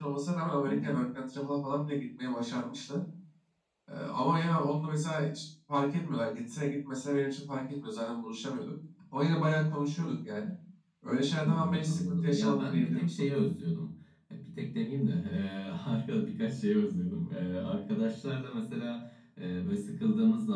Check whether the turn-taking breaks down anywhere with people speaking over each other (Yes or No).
Yes